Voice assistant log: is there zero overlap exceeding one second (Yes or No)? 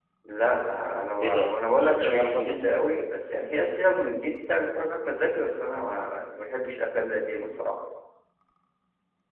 No